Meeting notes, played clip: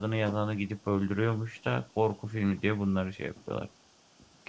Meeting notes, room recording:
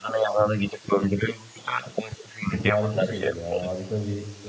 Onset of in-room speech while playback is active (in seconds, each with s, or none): 2.4 s